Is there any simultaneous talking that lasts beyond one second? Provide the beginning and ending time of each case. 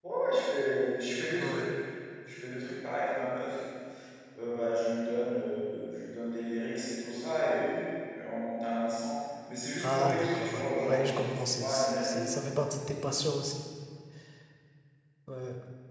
9.8-12.4

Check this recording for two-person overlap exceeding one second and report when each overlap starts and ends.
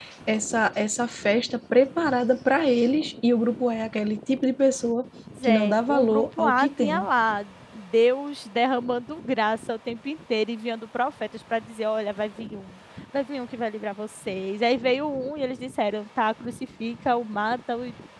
5.4-7.0

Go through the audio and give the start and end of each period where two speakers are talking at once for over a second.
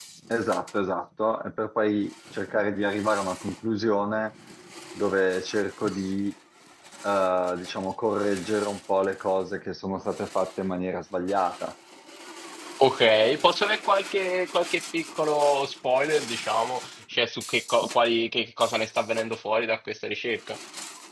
none

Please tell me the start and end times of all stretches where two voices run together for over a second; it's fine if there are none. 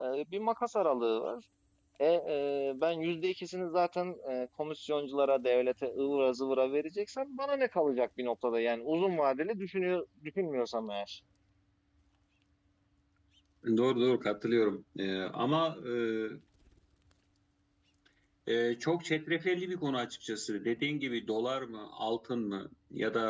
none

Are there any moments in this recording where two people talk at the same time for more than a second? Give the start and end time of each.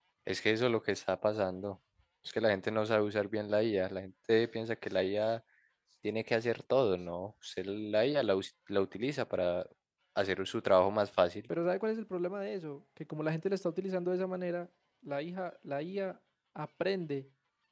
none

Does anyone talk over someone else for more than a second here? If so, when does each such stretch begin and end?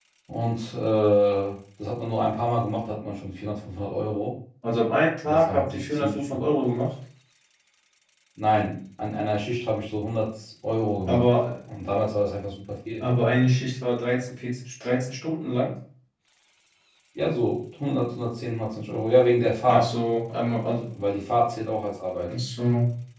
5.2-6.4

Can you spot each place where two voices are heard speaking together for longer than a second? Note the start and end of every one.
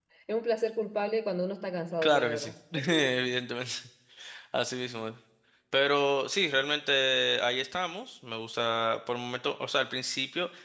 none

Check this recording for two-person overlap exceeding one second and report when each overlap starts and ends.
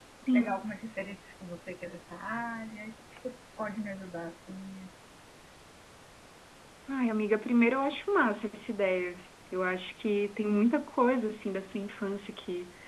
none

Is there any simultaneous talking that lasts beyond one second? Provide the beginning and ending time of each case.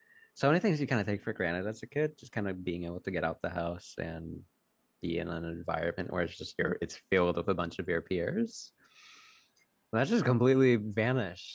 none

